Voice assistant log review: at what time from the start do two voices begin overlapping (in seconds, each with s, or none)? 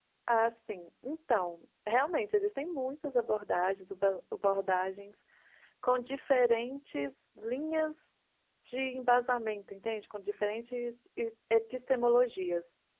none